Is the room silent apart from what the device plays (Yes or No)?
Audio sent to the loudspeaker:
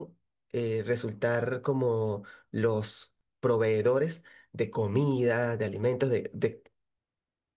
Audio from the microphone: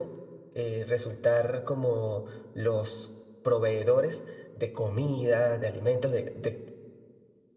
Yes